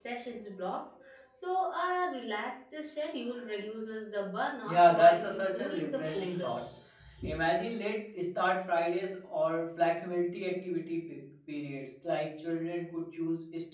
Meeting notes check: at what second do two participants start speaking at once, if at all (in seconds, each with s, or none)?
4.7 s